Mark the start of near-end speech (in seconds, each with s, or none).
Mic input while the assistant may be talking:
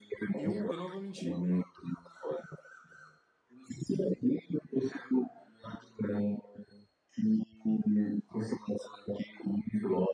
0.3 s